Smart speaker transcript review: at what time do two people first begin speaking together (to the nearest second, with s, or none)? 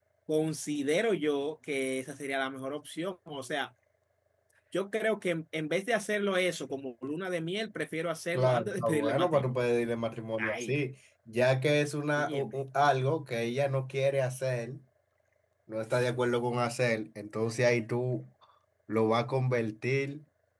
8 s